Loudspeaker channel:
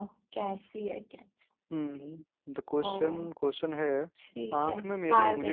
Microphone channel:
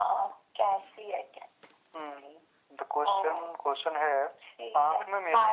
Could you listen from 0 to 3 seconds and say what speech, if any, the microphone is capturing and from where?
echo only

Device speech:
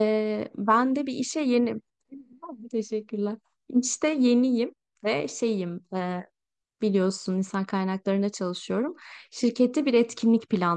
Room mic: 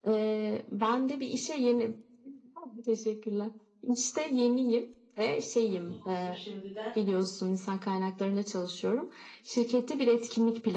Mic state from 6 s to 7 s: both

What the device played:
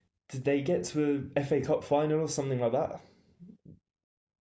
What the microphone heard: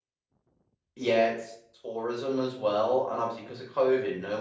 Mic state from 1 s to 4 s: user only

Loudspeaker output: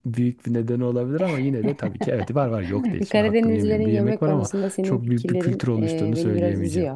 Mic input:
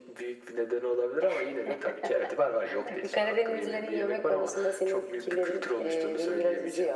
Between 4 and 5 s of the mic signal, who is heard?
echo only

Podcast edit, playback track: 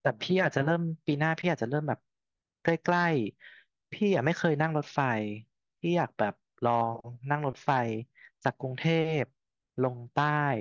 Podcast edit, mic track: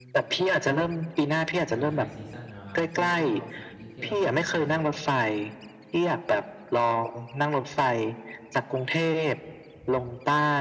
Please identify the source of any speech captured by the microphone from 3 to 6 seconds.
both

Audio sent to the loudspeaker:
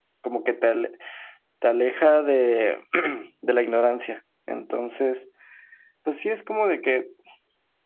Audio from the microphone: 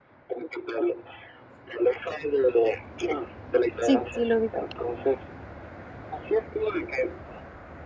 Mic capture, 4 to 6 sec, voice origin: both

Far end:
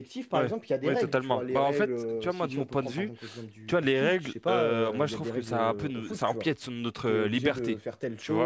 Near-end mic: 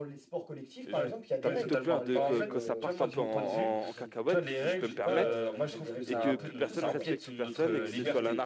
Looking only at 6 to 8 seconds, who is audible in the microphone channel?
both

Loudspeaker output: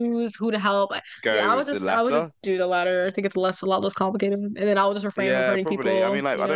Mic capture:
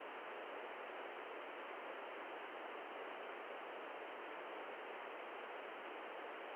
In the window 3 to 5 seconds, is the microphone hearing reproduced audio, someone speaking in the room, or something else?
neither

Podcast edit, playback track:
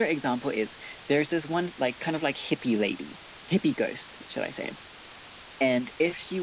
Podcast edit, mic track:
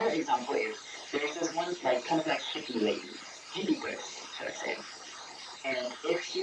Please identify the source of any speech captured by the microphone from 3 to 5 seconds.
echo only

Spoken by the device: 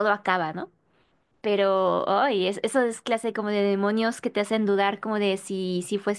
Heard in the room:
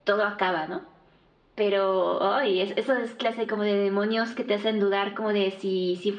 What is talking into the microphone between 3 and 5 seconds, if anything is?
echo only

